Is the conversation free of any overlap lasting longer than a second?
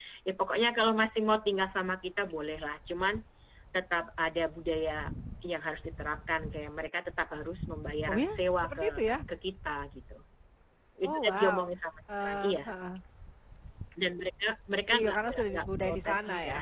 No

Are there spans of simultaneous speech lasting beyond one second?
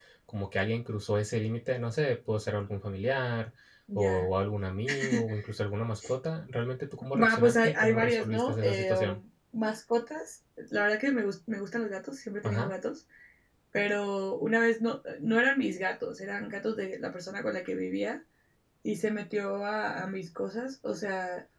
Yes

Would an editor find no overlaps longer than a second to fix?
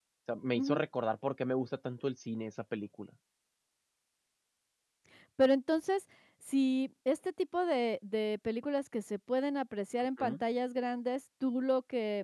Yes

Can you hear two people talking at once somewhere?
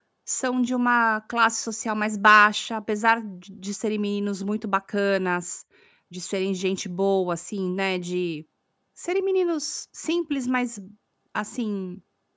No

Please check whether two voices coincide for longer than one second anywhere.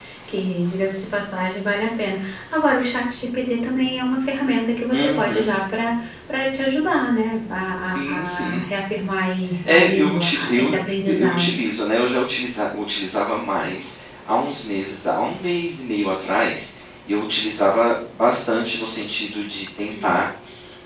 Yes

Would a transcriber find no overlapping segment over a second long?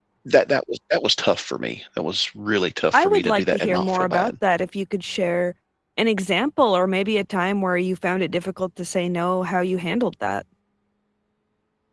No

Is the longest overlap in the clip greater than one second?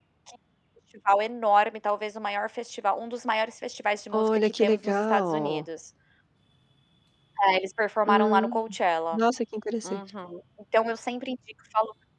Yes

